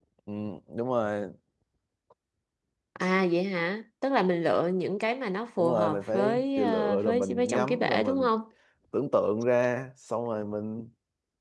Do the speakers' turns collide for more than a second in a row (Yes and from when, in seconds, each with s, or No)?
Yes, from 5.6 s